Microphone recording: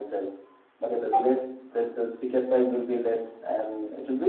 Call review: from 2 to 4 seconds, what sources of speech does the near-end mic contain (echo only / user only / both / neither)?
echo only